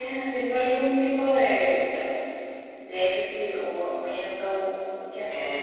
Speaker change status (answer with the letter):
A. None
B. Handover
B